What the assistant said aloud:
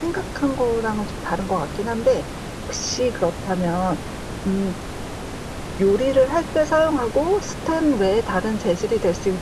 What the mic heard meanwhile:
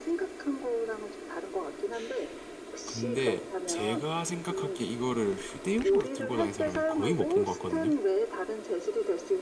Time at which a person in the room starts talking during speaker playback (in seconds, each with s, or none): 2.9 s